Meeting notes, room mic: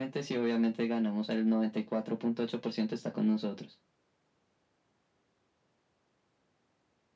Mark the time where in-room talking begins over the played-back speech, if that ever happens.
none

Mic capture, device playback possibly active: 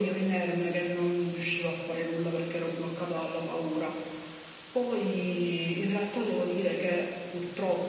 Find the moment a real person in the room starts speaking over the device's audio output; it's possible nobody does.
none

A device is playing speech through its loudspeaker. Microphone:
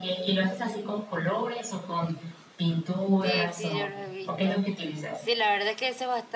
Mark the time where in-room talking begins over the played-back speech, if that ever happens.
3.2 s

